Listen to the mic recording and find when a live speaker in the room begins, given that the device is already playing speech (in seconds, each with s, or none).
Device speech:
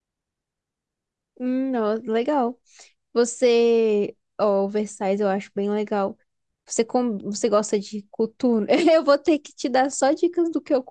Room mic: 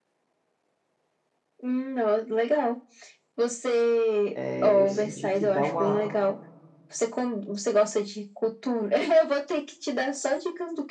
4.3 s